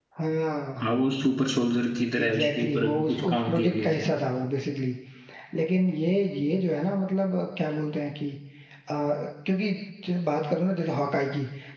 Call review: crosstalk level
present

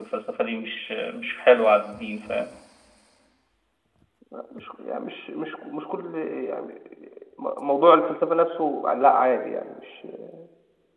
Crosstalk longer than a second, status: none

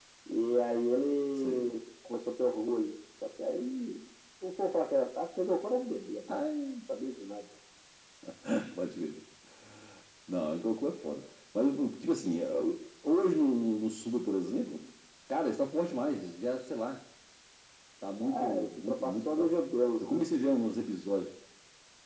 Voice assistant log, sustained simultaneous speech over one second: present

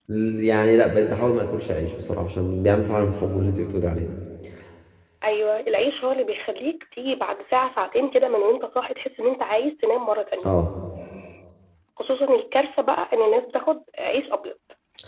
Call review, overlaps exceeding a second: none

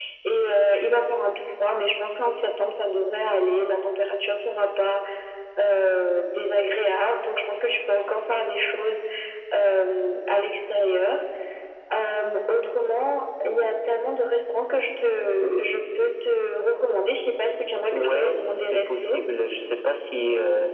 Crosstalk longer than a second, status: present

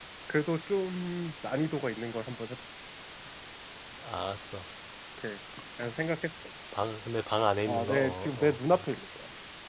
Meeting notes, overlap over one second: present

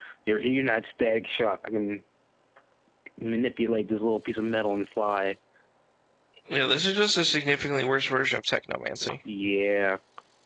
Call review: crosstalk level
none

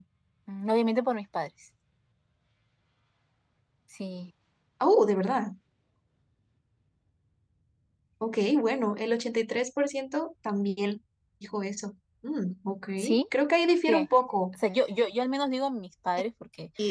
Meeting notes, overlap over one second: none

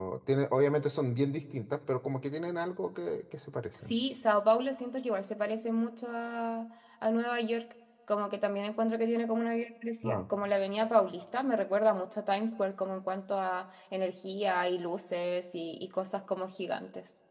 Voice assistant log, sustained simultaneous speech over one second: none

